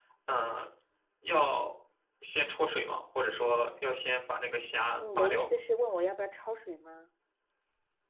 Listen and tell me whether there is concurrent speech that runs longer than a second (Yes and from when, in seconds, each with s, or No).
No